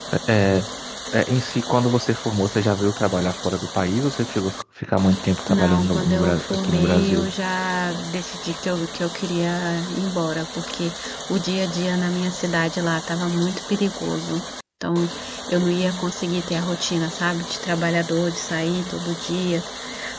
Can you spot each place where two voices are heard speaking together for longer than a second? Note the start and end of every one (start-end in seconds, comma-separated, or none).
5.5-7.3